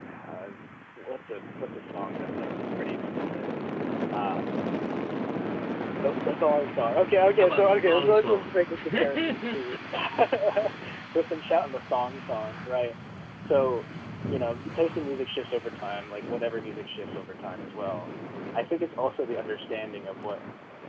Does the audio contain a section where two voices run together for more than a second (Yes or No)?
Yes